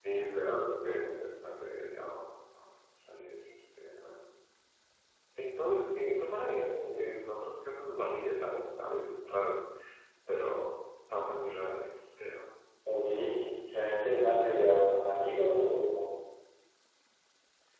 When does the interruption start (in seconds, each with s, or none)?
none